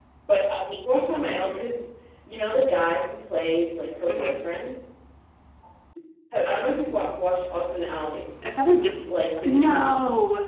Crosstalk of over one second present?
No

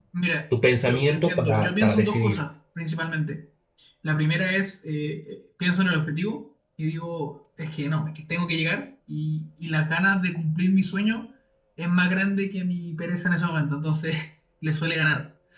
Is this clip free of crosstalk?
No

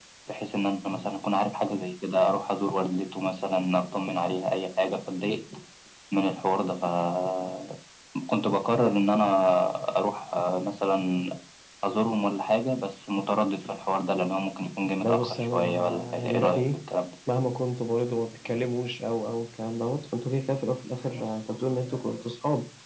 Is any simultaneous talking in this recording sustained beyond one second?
Yes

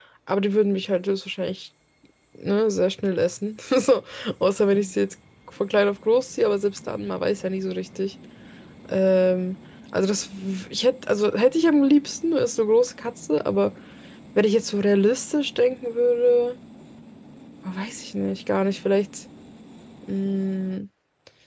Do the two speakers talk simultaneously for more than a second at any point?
No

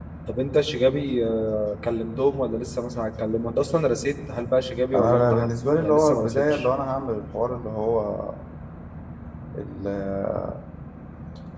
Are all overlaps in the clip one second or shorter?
No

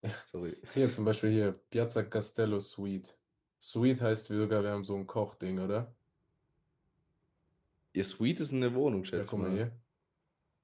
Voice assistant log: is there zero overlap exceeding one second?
Yes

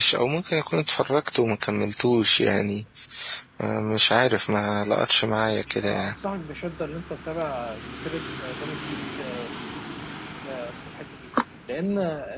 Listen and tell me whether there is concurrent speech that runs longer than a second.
No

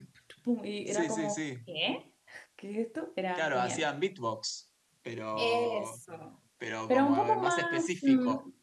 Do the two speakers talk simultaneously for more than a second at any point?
Yes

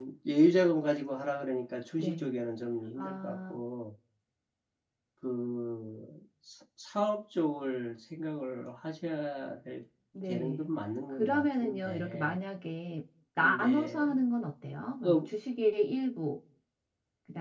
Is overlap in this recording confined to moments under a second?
No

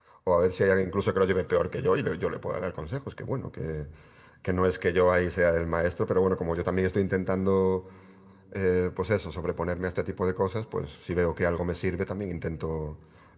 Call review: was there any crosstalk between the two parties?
No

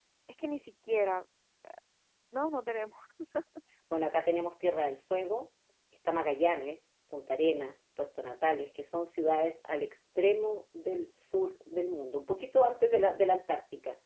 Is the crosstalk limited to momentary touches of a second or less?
Yes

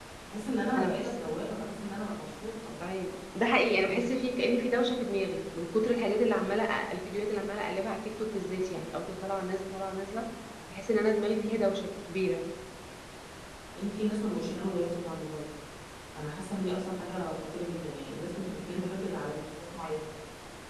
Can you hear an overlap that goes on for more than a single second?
No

